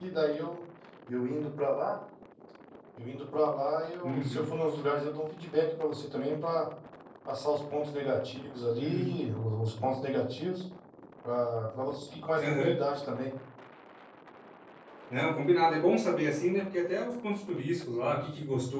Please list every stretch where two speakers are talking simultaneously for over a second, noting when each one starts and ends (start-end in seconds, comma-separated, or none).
none